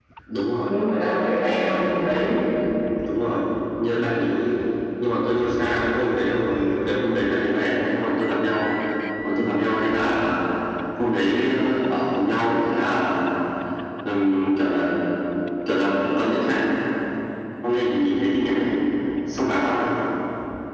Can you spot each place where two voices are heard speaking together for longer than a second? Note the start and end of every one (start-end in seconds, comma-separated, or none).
none